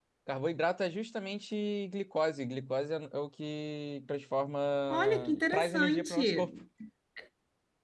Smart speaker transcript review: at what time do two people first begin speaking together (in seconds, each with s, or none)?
4.9 s